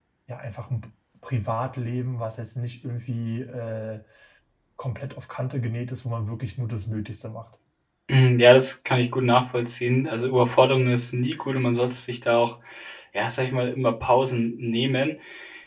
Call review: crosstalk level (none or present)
none